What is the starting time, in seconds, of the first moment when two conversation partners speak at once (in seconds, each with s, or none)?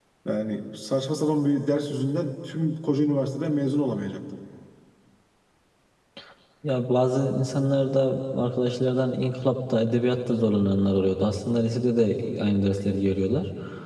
none